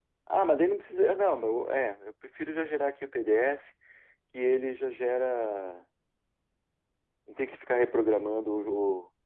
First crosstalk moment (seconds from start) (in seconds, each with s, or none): none